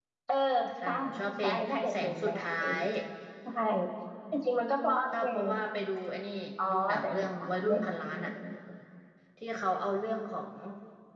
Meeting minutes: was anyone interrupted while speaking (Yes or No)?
Yes